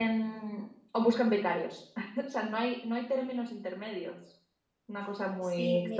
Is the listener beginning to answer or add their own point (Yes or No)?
Yes